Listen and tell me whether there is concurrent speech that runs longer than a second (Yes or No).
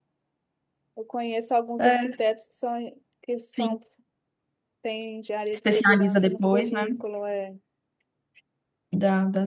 Yes